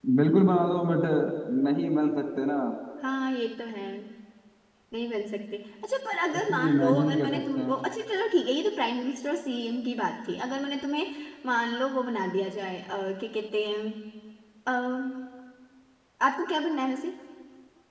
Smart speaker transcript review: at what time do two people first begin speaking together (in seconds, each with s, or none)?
6.2 s